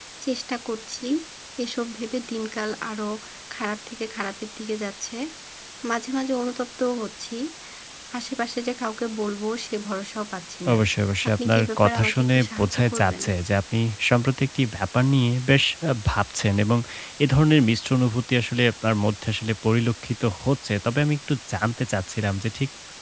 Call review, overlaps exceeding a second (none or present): present